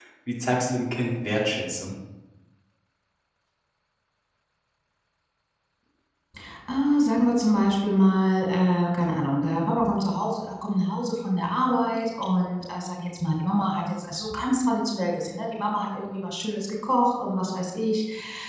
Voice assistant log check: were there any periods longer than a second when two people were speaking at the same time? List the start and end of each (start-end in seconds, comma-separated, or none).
none